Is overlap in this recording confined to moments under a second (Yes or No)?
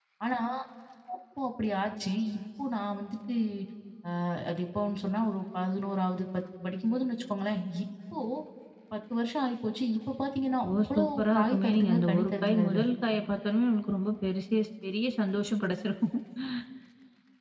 No